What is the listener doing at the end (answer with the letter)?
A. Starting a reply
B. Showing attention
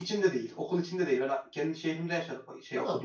A